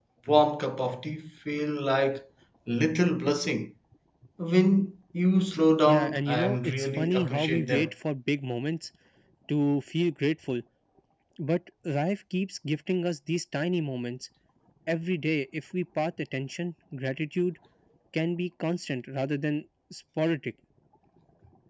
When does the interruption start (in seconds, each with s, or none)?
5.9 s